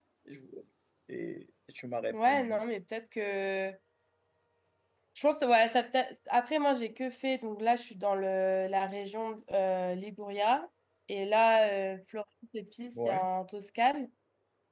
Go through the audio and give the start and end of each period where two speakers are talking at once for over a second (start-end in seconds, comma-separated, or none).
none